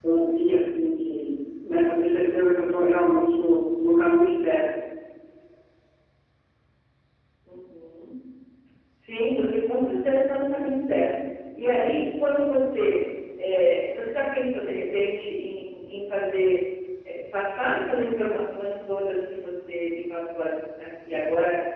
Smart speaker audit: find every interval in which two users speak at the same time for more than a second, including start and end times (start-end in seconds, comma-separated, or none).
none